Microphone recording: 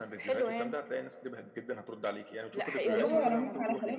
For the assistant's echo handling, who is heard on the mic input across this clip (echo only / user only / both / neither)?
both